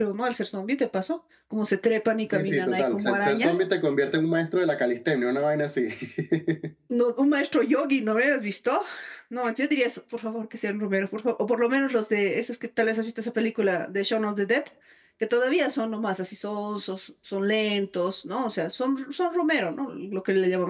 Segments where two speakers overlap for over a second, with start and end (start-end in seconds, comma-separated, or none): 2.3-3.6